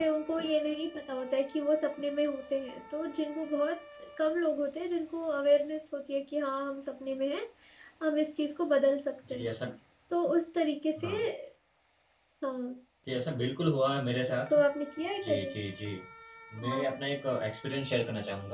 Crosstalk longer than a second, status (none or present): none